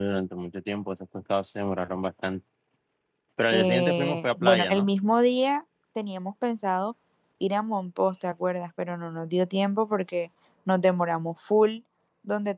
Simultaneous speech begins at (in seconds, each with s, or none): 3.5 s